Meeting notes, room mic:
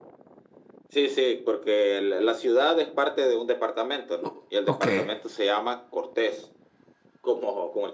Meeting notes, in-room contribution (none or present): present